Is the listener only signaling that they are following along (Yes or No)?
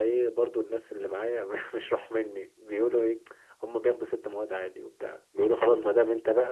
Yes